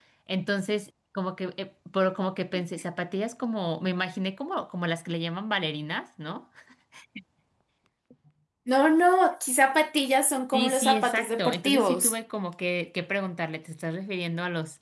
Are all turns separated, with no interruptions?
No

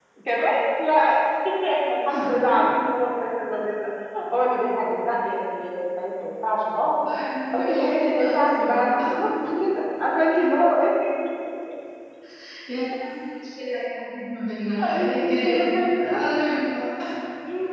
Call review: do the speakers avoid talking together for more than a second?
No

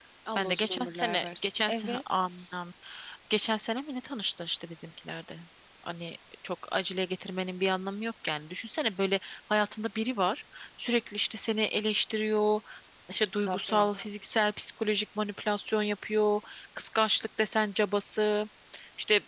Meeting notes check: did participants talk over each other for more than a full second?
Yes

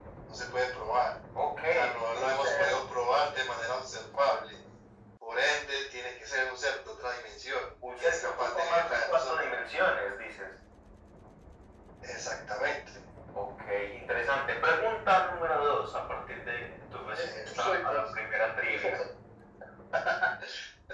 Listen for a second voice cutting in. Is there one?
Yes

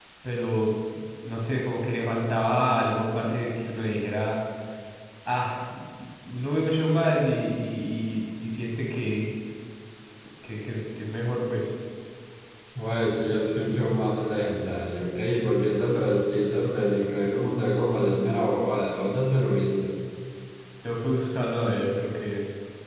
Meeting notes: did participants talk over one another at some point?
No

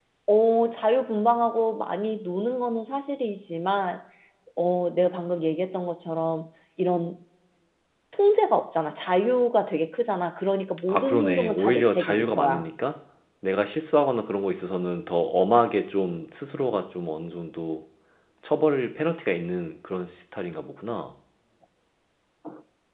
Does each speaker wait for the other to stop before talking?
No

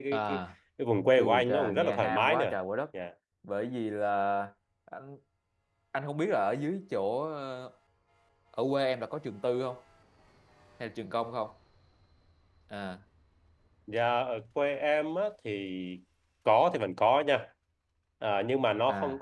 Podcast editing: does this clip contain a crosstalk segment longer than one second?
Yes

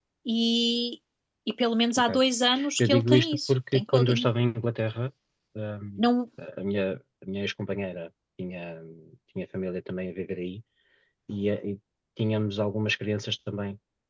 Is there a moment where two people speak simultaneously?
Yes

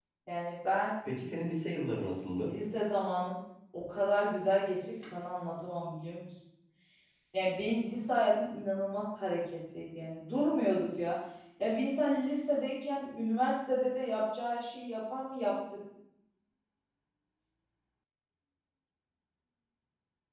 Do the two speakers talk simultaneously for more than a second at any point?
No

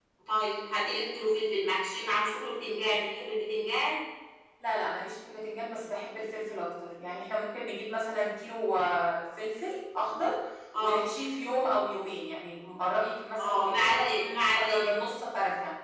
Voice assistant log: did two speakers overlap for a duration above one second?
Yes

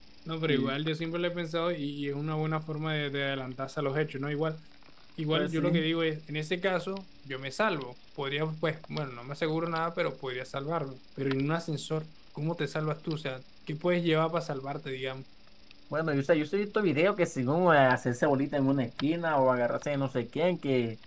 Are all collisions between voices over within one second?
Yes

